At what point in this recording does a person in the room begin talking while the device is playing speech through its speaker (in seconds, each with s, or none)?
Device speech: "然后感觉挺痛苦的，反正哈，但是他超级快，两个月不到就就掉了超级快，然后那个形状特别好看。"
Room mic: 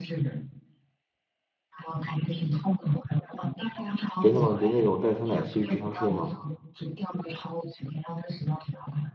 4.2 s